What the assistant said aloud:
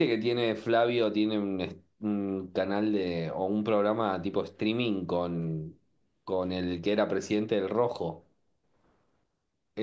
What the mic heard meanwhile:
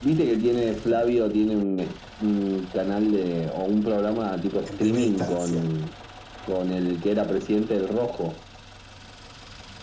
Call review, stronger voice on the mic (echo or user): echo